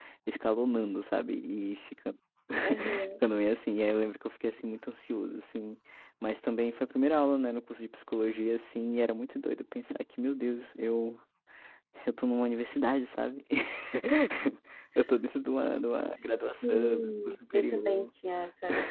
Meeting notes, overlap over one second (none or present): present